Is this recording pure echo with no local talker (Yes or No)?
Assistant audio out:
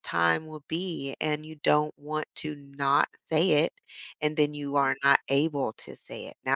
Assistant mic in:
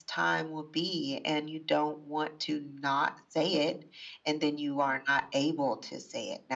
Yes